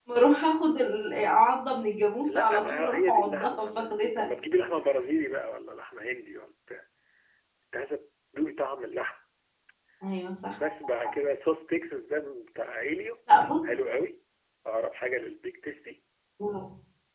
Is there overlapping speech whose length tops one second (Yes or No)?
Yes